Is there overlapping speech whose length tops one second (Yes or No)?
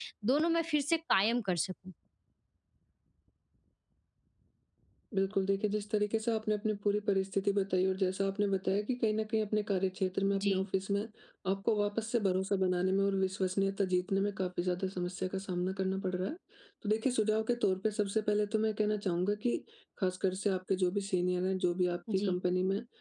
No